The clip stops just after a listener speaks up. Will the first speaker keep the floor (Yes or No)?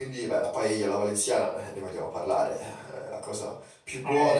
Yes